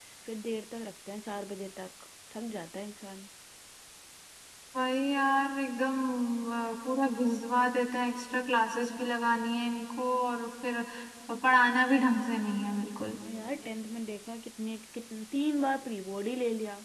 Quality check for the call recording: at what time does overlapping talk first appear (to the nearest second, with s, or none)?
none